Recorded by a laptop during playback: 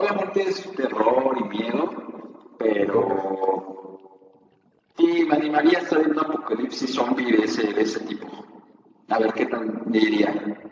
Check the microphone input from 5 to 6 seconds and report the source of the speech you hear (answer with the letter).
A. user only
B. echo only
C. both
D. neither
B